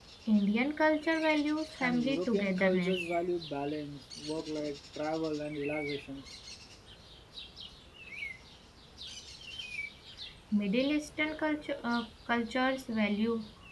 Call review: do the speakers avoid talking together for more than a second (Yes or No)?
No